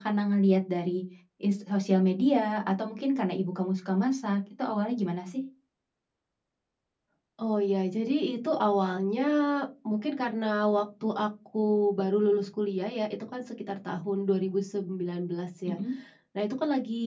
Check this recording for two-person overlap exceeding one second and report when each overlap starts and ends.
none

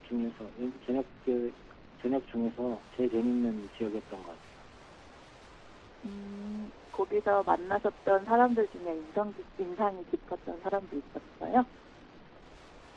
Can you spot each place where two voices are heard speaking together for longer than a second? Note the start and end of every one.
none

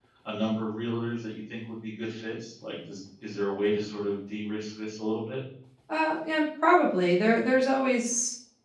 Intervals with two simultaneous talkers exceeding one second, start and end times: none

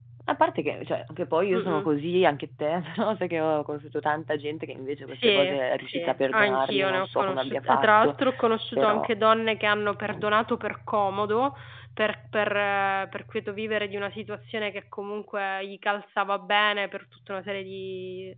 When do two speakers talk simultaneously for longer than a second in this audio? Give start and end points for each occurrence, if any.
5.1-8.2

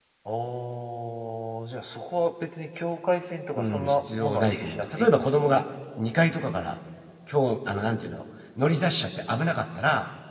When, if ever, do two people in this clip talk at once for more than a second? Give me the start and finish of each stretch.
3.5-5.6

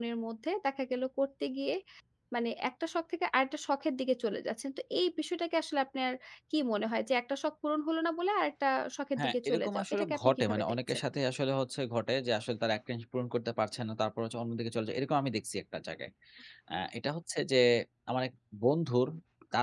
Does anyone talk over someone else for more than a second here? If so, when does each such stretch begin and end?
9.2-11.0

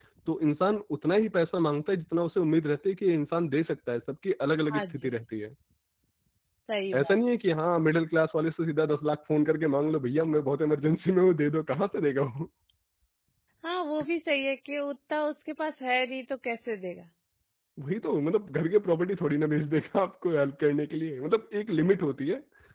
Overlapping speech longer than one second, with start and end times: none

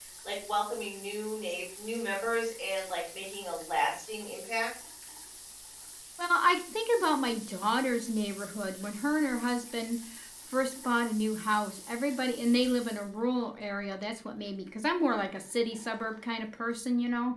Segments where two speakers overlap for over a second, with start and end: none

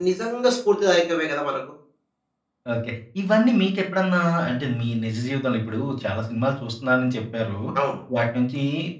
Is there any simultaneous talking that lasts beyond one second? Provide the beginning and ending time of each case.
none

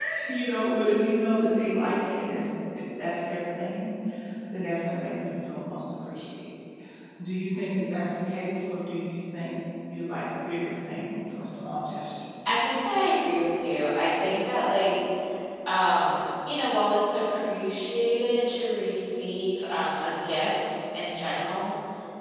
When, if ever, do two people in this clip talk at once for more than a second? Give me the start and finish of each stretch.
none

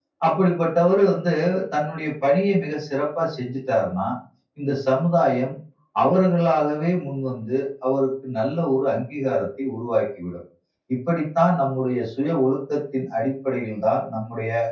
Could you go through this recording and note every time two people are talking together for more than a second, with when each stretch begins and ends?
none

